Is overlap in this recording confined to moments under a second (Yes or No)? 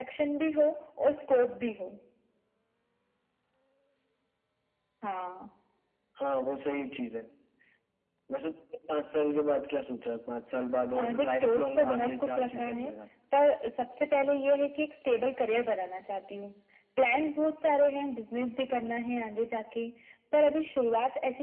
No